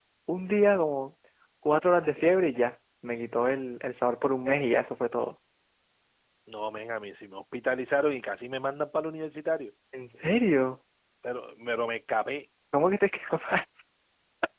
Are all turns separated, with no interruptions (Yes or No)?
Yes